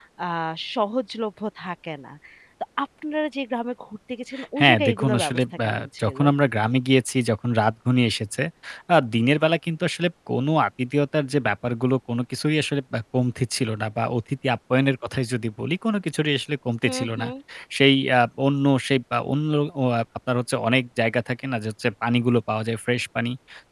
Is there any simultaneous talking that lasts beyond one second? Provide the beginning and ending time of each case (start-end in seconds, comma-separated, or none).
4.6-6.2